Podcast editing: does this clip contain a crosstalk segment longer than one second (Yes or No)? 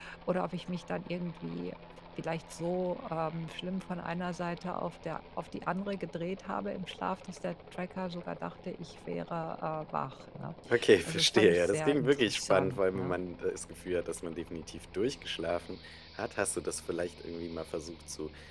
Yes